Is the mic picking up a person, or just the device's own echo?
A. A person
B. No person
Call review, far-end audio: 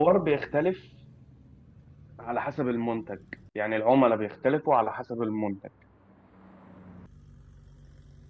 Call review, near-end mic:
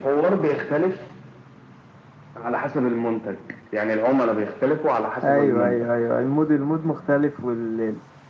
A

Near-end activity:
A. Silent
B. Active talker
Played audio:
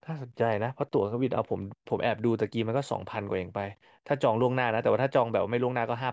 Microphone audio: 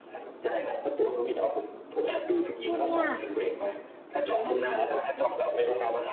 B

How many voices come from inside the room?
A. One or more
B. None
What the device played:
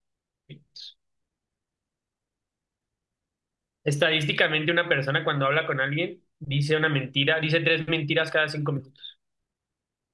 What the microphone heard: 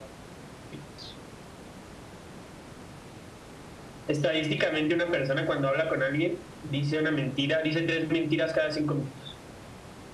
B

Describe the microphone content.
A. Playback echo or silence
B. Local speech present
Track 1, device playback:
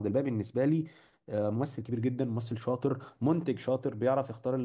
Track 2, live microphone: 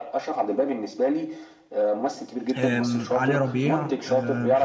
B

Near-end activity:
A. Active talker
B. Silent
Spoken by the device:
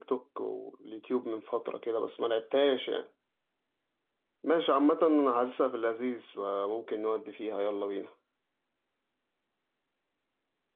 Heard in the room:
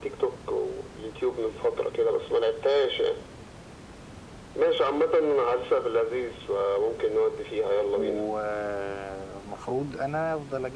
A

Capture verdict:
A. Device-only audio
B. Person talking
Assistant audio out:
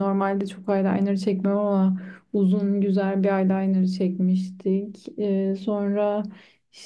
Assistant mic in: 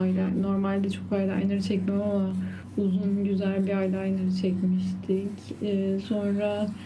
A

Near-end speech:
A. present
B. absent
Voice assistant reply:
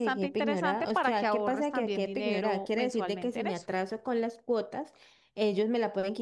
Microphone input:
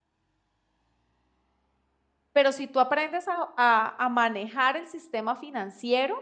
A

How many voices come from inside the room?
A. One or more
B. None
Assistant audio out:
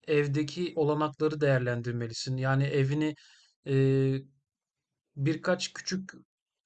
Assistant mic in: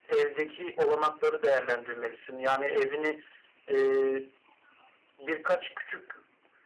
B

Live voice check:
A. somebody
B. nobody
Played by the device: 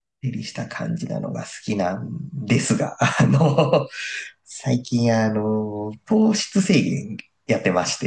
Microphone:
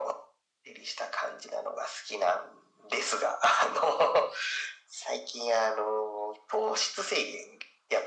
B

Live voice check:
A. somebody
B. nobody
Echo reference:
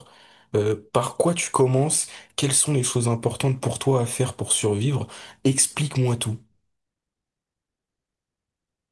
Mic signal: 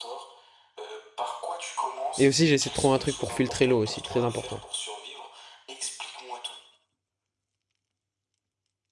A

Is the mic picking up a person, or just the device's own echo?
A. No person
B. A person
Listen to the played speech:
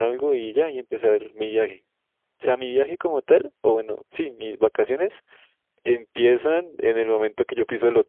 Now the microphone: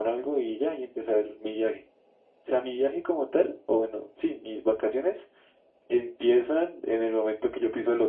A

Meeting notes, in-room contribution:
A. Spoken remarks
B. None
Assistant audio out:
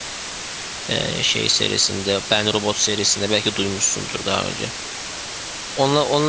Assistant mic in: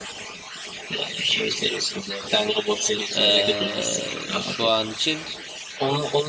A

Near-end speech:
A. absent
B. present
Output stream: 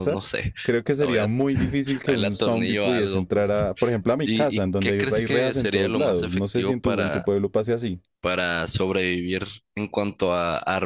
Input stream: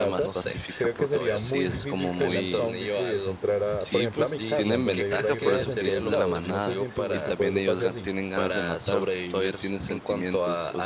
B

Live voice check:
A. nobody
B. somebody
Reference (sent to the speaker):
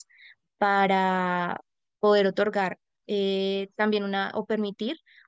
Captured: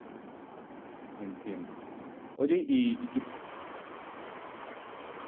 B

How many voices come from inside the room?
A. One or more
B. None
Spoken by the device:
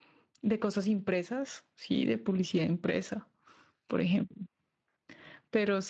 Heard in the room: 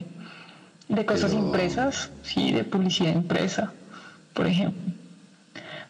A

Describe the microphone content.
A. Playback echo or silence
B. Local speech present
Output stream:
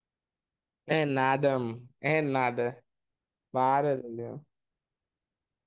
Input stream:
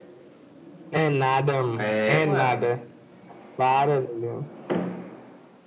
B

